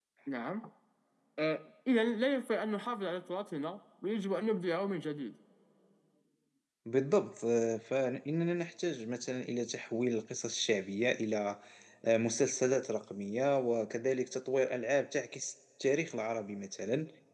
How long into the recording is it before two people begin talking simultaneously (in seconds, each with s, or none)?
none